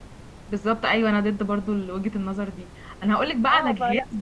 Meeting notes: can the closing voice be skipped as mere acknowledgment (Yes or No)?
Yes